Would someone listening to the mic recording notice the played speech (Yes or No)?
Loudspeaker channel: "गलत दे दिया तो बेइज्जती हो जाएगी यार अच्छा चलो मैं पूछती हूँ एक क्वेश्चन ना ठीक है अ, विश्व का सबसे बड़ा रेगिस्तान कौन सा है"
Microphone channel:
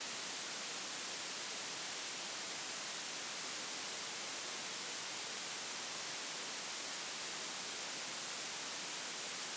No